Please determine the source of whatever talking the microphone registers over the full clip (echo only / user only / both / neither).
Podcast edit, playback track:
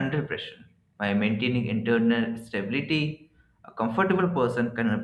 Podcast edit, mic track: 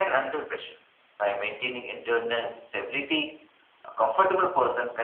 echo only